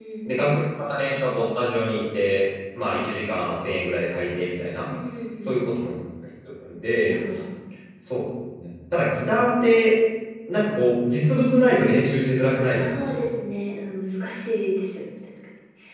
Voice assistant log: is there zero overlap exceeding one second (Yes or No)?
Yes